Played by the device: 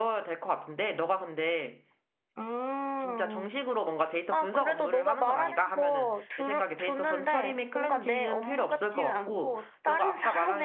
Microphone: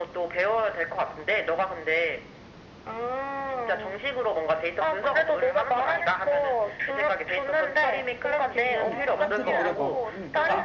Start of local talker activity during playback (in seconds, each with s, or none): 8.7 s